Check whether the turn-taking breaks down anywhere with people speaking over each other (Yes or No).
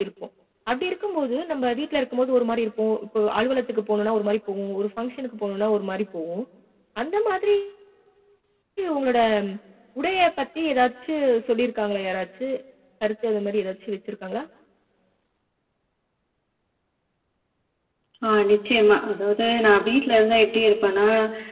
No